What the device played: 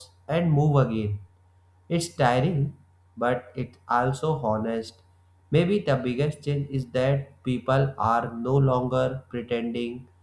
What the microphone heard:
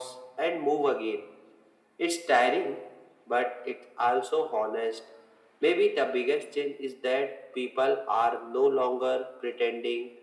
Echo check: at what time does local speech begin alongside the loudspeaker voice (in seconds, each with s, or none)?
none